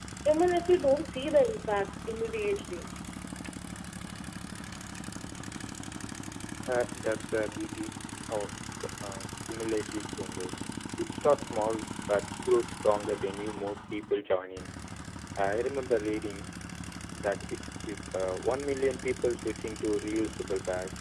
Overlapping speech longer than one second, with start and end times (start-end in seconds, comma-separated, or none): none